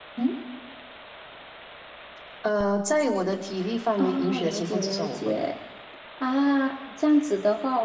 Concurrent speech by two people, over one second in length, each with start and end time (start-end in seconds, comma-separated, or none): 4.0-5.4